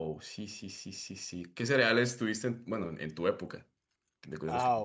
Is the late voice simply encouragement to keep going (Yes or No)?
No